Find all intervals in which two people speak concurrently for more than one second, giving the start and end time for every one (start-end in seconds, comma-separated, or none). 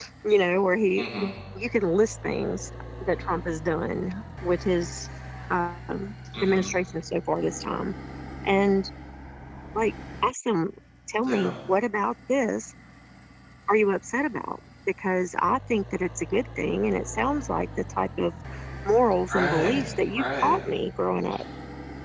19.3-20.6